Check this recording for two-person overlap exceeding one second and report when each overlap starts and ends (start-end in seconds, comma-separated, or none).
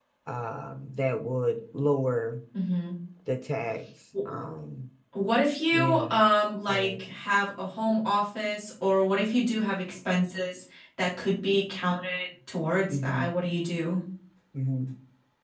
none